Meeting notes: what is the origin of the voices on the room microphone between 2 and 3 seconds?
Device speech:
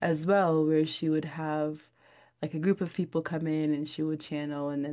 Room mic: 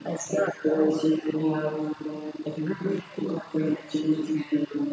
echo only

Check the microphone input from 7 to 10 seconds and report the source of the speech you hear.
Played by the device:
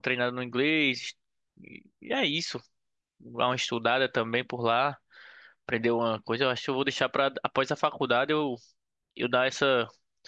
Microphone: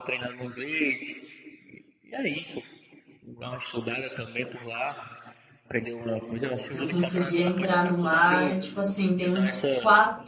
both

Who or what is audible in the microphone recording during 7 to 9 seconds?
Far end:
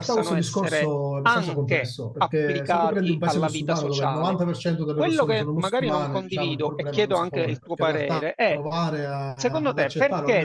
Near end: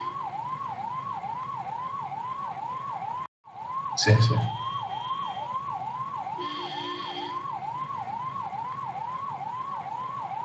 neither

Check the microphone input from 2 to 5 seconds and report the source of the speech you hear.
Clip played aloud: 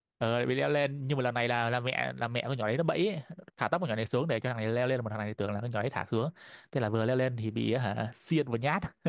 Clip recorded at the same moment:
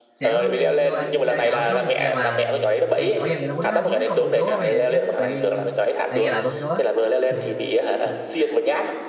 both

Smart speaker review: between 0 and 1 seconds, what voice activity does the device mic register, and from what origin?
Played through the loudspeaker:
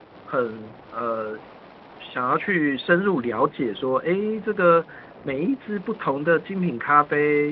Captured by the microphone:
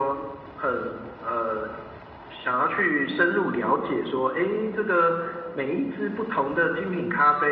echo only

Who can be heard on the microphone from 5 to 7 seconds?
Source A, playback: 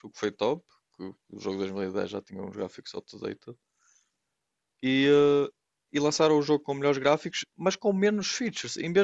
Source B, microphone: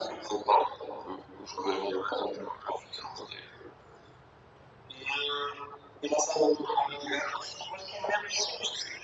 echo only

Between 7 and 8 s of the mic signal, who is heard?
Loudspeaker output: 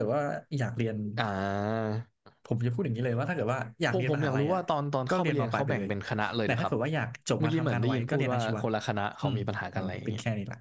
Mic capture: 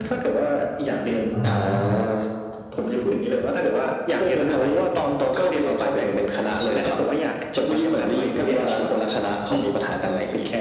echo only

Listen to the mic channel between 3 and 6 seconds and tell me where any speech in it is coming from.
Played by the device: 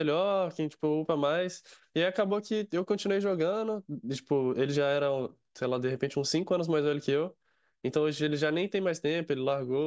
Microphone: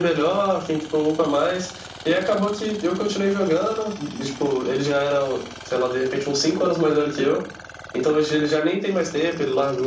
echo only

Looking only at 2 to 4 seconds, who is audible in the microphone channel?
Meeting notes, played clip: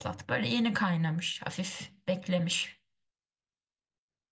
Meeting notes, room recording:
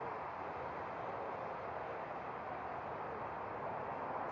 neither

